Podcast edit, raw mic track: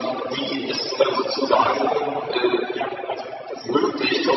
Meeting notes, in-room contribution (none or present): present